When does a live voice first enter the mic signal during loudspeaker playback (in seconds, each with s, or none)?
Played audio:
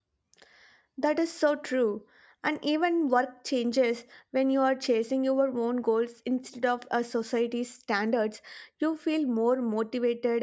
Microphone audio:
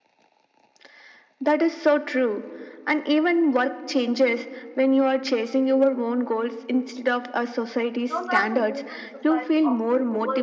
8.1 s